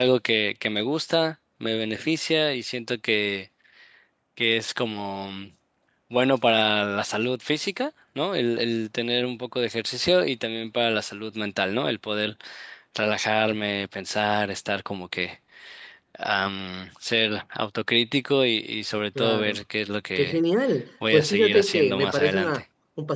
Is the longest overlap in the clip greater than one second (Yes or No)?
Yes